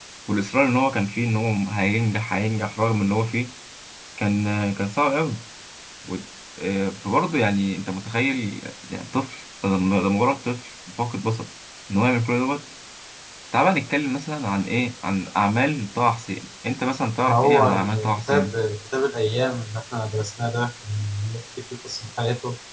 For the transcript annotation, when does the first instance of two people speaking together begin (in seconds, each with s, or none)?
17.3 s